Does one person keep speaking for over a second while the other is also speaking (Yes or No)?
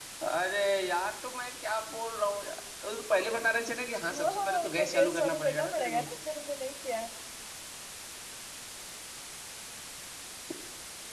Yes